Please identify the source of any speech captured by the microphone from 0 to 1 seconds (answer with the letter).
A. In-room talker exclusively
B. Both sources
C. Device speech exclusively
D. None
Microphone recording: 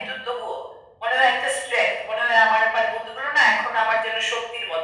C